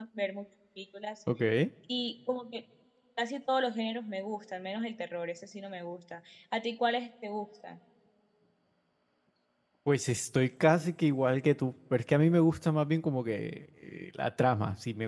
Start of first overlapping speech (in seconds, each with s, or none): none